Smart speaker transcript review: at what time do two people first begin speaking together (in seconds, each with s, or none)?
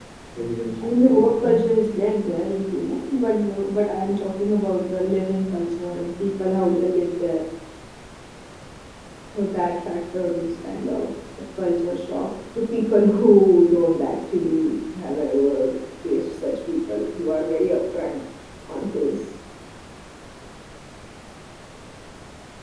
0.8 s